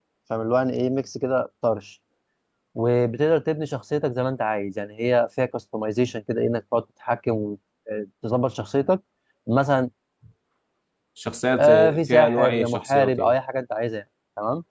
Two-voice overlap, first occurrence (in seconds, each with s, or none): 11.6 s